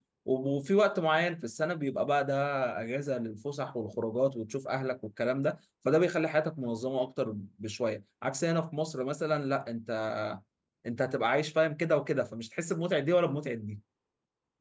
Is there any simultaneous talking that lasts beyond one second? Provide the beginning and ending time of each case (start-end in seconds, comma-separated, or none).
none